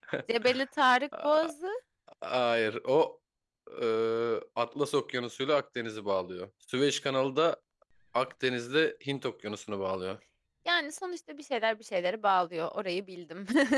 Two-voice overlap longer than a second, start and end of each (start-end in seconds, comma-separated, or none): none